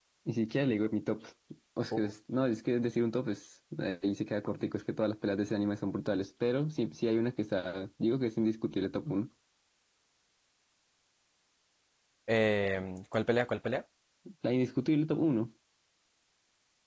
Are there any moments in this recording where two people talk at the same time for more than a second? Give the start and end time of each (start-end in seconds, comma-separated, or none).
none